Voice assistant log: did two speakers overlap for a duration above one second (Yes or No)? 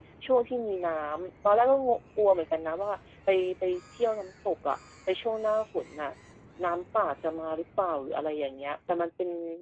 No